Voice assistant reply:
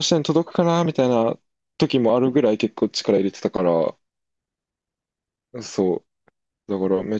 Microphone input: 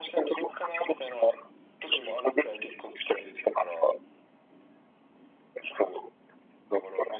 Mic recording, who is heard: echo only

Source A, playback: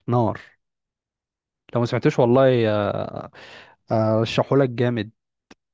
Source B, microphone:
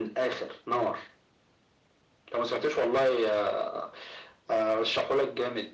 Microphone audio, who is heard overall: echo only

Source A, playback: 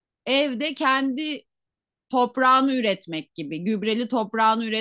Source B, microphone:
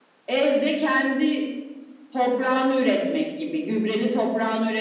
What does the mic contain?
echo only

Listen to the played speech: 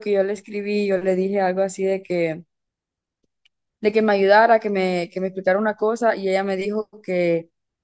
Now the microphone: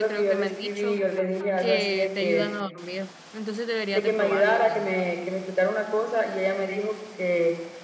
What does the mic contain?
both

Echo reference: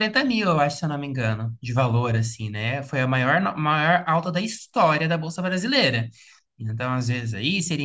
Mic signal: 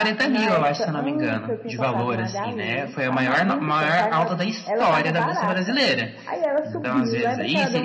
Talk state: both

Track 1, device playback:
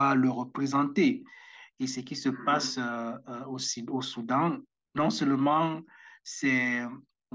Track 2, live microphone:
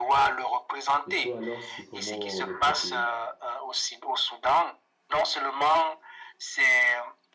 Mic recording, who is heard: both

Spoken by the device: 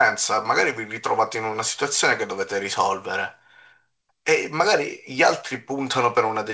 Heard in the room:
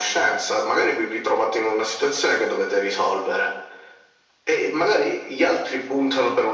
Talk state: echo only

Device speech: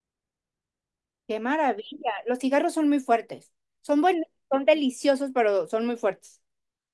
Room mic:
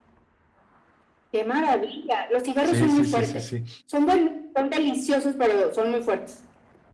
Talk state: both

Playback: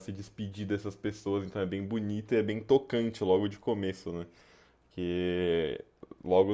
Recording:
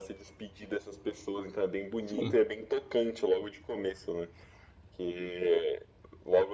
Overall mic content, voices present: both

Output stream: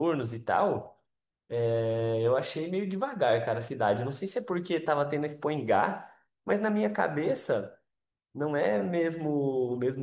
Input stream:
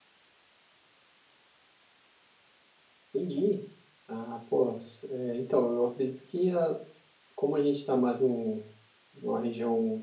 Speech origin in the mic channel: user only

